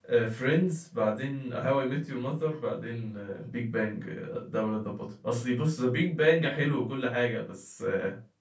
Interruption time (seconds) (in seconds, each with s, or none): none